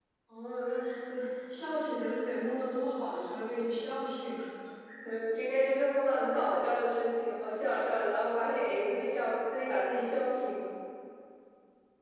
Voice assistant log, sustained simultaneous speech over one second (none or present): none